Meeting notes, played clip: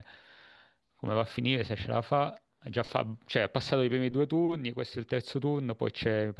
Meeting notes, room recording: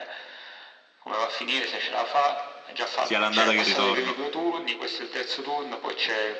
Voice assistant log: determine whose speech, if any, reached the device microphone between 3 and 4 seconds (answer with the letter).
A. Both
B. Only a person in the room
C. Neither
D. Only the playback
A